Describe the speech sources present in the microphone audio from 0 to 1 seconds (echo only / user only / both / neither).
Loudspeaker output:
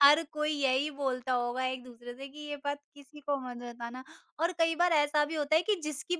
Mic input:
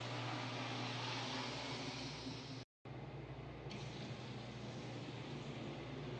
neither